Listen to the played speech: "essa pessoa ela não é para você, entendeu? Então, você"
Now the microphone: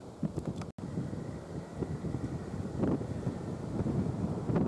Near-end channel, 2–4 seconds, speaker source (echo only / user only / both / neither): neither